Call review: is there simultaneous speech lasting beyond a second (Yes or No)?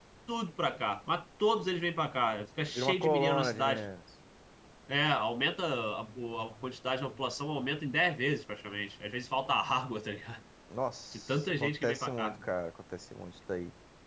Yes